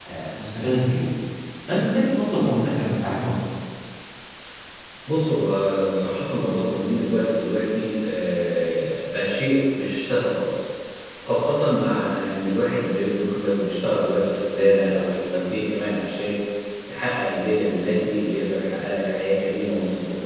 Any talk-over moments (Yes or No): No